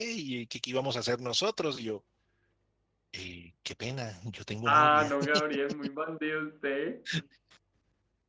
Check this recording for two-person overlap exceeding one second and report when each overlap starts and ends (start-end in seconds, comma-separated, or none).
none